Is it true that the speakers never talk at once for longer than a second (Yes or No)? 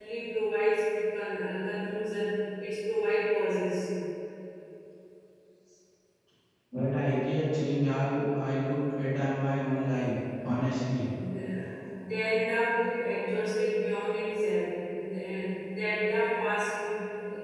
Yes